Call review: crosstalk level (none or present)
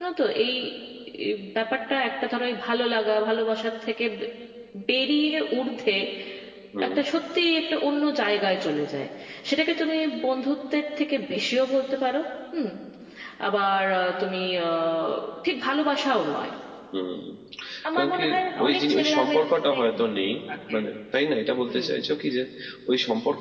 present